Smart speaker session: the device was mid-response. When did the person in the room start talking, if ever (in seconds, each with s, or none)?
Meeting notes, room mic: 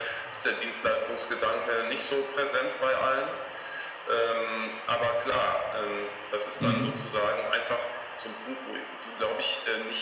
6.6 s